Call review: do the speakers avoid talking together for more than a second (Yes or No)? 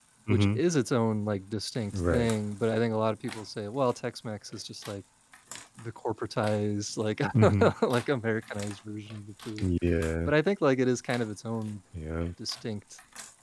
Yes